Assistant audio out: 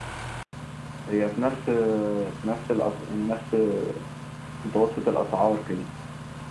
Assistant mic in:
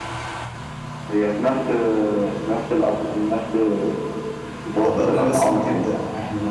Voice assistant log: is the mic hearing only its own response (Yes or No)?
No